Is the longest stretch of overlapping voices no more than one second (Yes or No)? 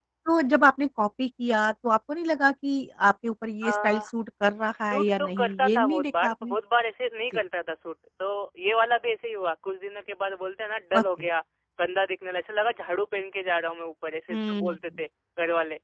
No